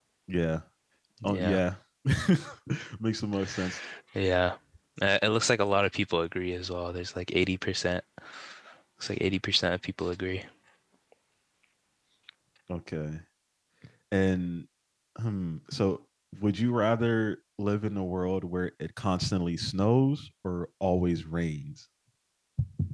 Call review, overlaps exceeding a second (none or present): none